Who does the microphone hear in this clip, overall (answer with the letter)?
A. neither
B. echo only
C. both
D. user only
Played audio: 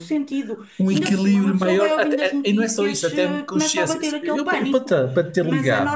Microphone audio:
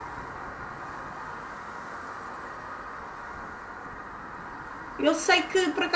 D